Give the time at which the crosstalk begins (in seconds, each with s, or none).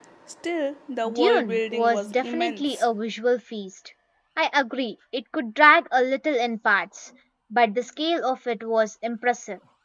1.1 s